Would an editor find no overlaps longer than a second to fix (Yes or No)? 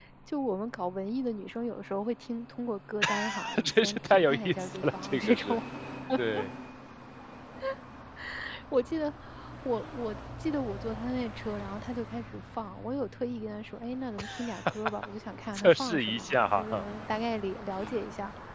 No